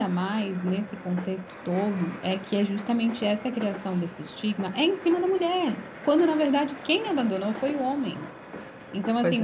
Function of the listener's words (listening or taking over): listening